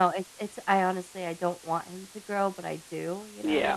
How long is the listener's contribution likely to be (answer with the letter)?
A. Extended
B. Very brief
A